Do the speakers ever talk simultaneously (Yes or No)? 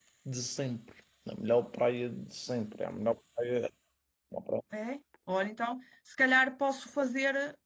No